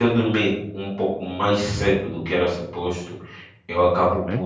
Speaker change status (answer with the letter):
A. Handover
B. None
B